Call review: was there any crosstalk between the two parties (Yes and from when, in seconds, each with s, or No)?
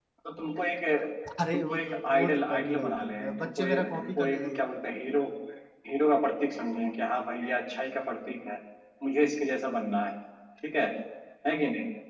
Yes, from 1.5 s